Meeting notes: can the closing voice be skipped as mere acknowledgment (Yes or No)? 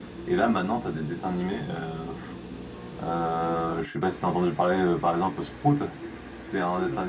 Yes